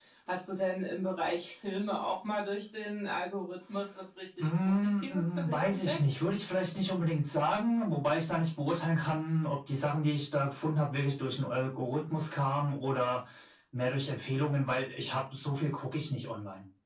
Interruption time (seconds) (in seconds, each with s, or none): 4.4 s